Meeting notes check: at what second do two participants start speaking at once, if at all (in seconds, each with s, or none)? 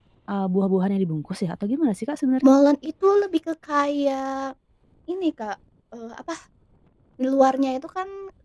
none